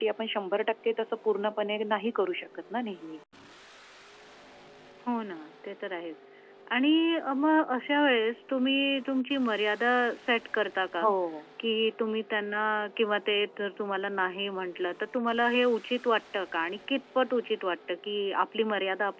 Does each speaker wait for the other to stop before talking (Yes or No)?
Yes